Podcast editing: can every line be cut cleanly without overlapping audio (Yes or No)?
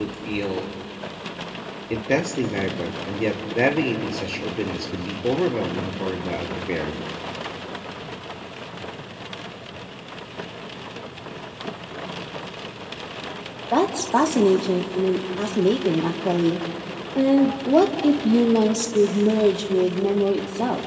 Yes